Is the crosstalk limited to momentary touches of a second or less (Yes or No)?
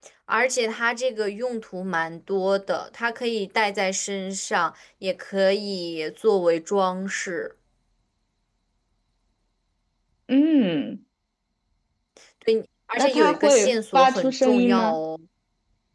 No